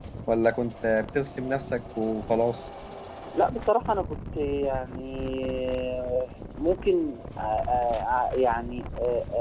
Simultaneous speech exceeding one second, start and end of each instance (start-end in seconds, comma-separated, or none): none